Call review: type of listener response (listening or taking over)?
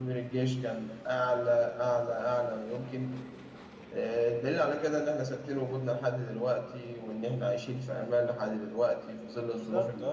taking over